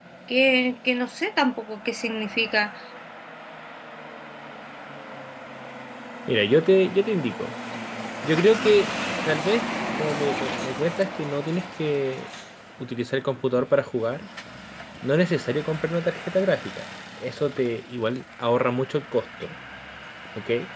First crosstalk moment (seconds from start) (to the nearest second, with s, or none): none